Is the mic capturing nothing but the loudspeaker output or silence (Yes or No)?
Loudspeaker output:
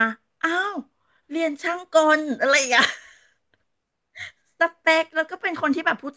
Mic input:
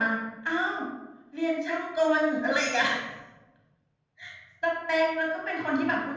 Yes